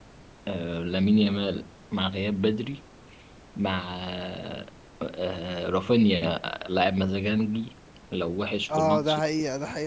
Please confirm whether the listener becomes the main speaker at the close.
Yes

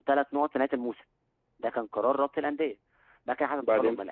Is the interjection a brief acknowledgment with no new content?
Yes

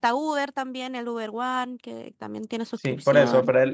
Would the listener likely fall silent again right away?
No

